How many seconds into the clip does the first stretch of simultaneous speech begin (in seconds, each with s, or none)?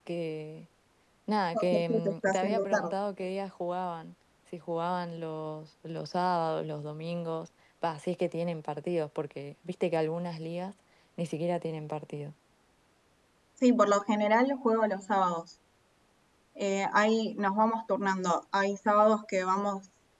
1.5 s